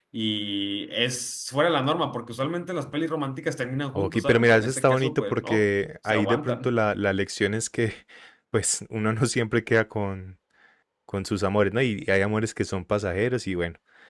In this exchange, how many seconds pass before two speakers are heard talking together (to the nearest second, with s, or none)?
4 s